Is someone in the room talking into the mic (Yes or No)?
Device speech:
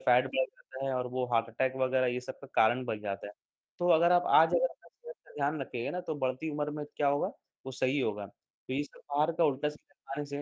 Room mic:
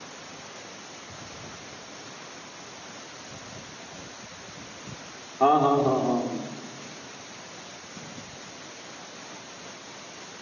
Yes